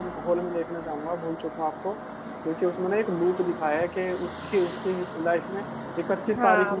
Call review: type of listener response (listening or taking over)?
taking over